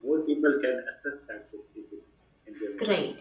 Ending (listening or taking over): taking over